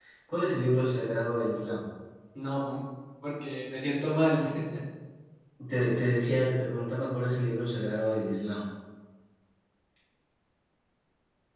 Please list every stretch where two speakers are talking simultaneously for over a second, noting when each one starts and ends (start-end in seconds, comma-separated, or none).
none